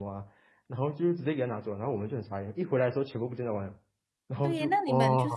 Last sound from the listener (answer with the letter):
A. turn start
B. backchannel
A